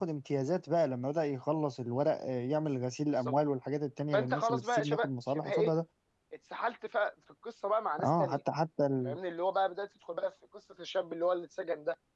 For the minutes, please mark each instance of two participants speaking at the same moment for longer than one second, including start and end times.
4.1-5.7

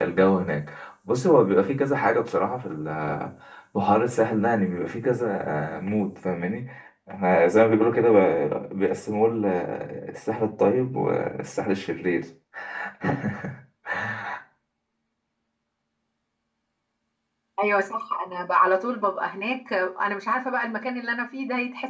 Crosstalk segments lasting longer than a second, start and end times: none

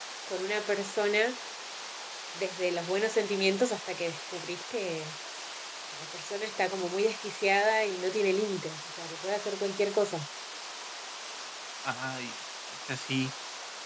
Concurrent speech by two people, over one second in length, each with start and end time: none

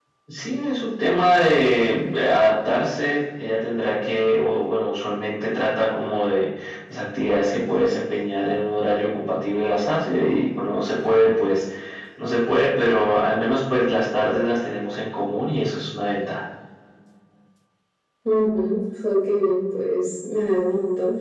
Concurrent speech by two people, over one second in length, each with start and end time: none

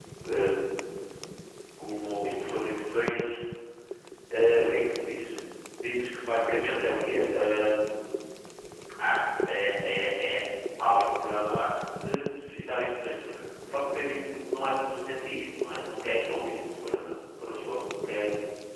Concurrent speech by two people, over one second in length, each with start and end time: none

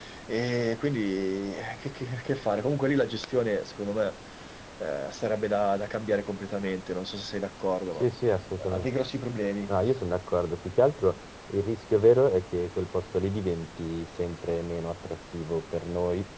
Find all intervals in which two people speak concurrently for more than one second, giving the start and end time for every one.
none

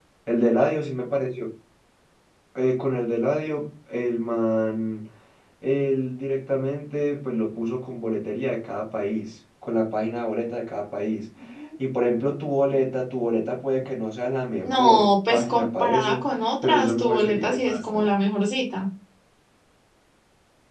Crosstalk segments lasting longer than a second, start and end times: 14.6-16.2, 16.6-18.1

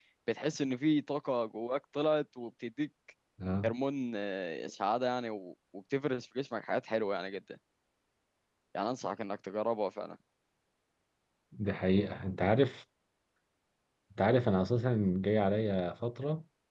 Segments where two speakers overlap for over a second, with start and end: none

